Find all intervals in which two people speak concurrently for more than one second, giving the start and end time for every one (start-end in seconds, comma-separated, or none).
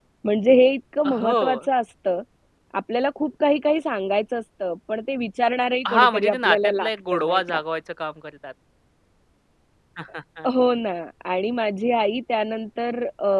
5.9-7.6